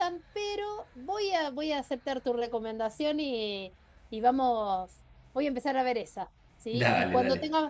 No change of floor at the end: Yes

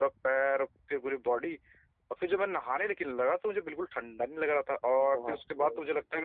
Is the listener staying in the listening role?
Yes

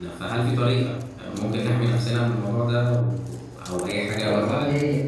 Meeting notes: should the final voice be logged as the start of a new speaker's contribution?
Yes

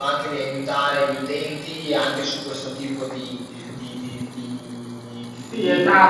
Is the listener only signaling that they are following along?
No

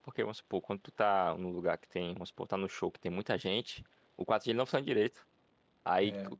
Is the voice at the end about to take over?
No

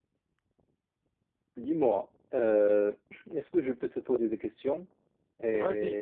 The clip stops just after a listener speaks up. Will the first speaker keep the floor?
No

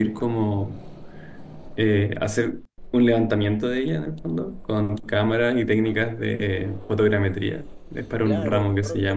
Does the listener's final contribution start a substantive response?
Yes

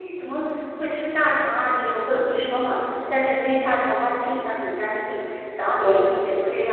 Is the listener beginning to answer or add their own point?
No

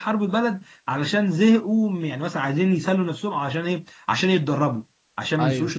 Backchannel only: Yes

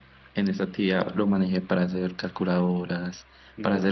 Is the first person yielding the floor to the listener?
No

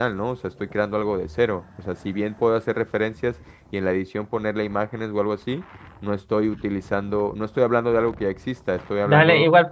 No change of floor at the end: No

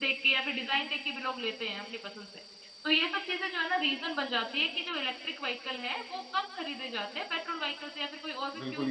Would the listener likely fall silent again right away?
No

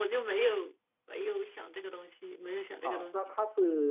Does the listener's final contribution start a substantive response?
Yes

